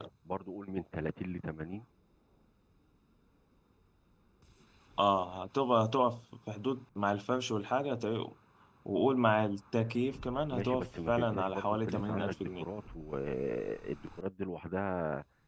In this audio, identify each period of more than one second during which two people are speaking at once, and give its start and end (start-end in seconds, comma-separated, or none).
10.5-12.6